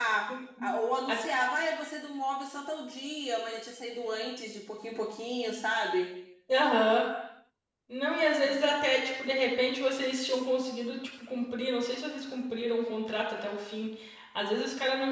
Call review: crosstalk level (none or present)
none